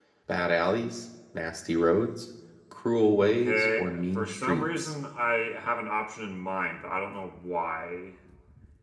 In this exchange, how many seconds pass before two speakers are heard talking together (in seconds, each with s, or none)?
3.2 s